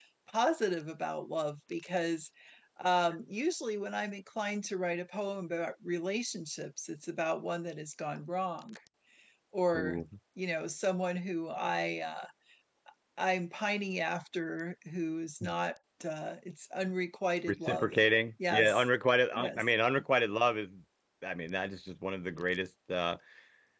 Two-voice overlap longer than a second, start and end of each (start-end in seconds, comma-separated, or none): none